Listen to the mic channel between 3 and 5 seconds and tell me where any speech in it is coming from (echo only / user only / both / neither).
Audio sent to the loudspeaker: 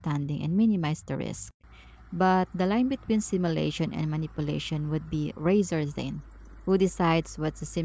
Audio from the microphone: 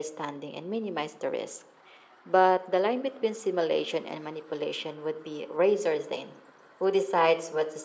echo only